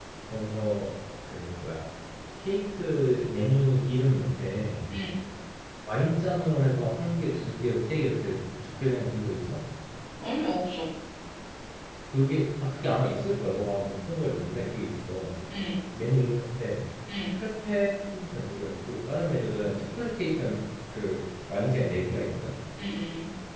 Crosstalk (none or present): none